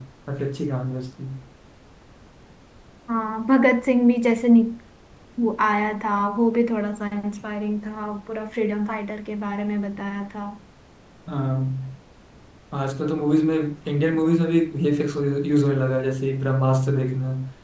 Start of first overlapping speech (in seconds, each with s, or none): none